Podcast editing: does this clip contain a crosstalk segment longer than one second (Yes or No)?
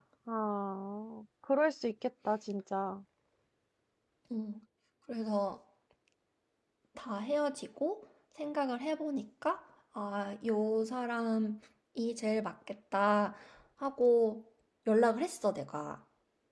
No